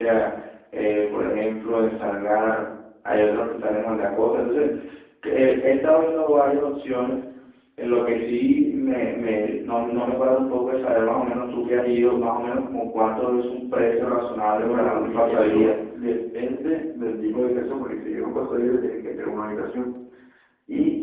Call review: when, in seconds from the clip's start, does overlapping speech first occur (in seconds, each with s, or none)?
14.5 s